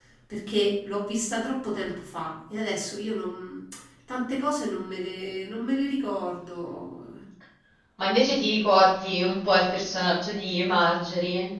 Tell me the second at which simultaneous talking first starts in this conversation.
none

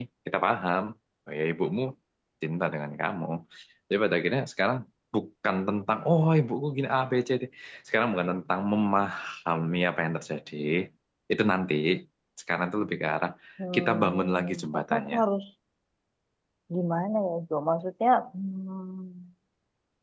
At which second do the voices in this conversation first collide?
13.8 s

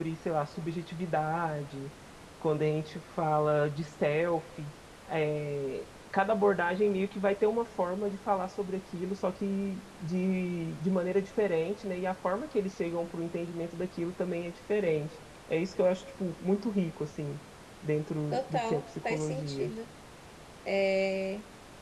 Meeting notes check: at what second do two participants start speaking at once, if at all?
18.3 s

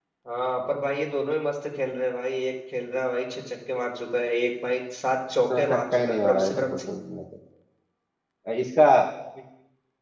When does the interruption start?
5.5 s

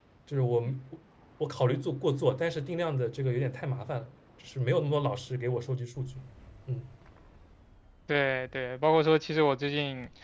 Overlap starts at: none

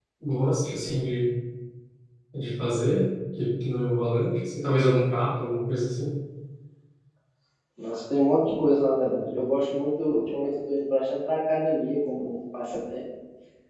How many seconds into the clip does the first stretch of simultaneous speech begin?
none

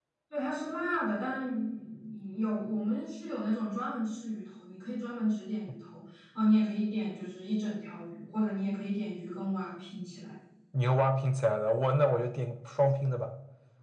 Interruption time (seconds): none

